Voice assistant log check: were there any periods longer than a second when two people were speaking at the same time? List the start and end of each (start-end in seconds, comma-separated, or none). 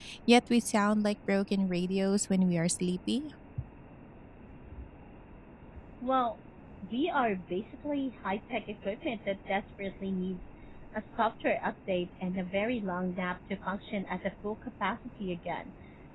none